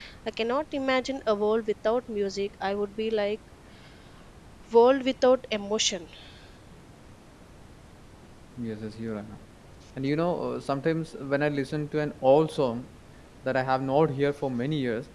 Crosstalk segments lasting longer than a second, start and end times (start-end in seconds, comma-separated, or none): none